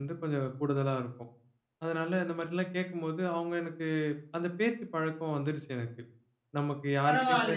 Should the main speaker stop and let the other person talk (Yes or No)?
Yes